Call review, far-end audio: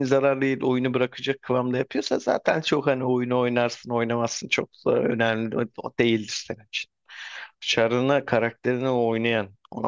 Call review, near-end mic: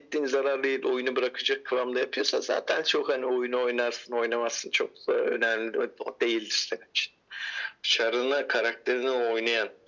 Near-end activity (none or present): none